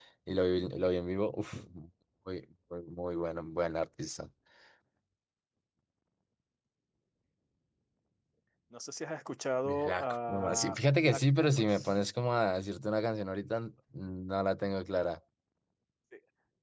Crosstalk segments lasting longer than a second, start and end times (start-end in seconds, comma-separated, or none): 9.7-11.9